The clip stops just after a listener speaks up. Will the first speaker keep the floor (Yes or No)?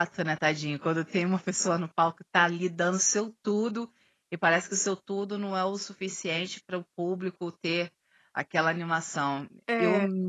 Yes